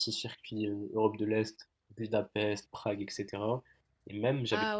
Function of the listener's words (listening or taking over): listening